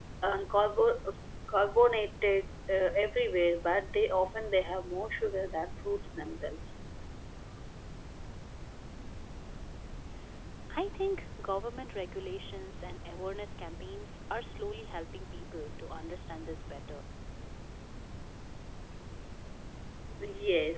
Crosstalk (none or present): none